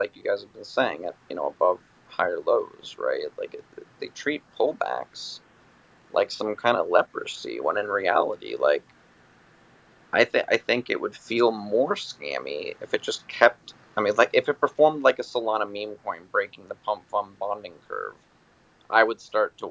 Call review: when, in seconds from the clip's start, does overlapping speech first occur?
none

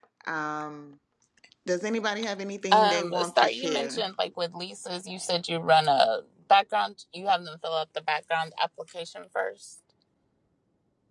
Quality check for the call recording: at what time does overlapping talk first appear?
2.7 s

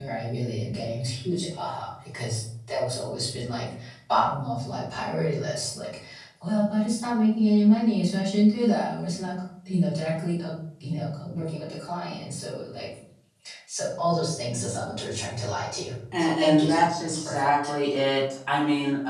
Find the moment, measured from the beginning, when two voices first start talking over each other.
16.1 s

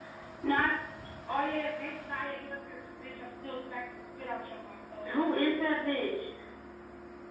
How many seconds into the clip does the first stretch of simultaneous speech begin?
none

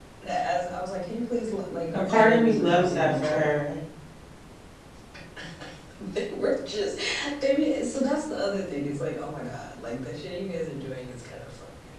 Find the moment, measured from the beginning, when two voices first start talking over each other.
1.9 s

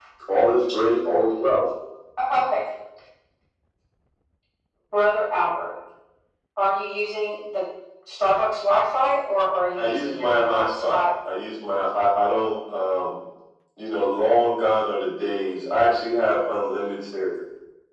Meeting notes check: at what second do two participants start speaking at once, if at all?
9.8 s

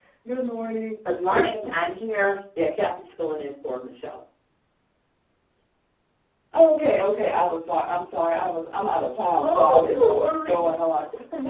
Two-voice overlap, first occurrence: 9.4 s

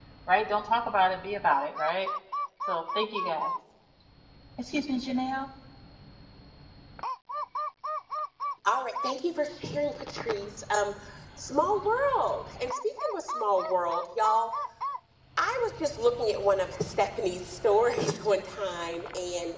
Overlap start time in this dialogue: none

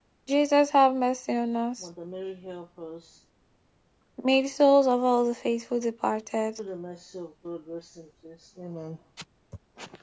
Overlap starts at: none

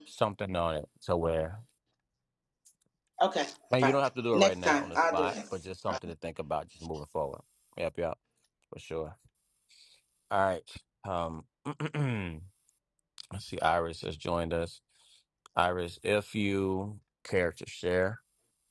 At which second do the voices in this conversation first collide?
3.8 s

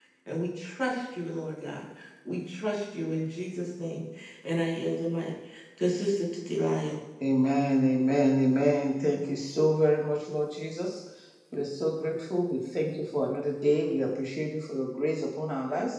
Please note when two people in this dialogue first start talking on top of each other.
none

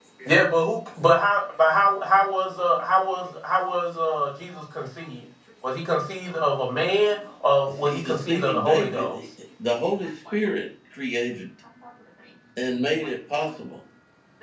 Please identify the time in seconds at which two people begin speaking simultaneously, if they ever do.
7.8 s

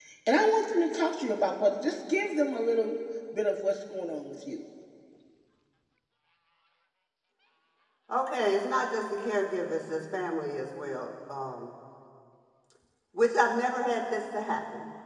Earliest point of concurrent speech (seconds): none

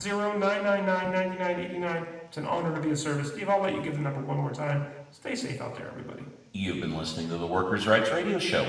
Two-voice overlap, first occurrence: none

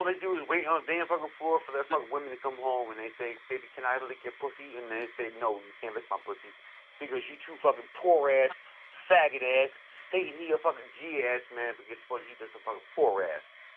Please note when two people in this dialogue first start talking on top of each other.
none

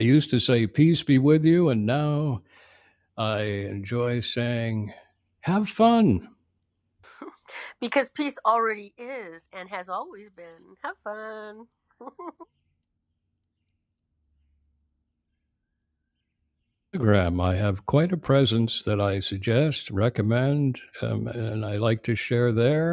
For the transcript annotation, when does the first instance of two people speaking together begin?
none

